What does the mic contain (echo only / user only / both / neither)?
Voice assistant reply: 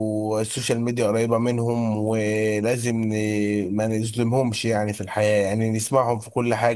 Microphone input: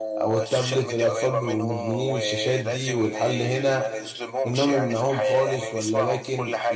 both